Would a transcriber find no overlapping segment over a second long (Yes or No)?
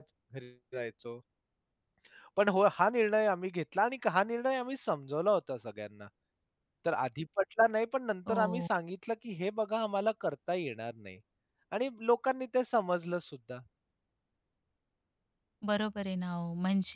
Yes